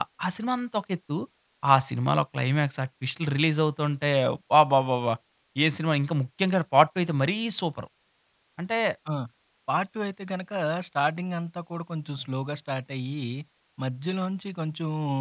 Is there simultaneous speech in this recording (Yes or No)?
No